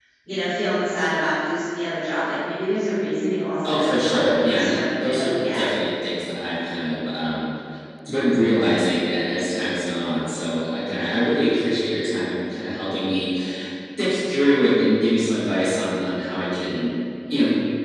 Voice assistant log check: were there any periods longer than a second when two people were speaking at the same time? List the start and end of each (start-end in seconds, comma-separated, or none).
3.6-5.7